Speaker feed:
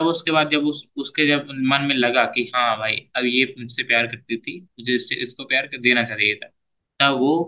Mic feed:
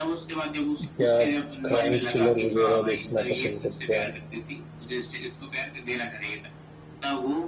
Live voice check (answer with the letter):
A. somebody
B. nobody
A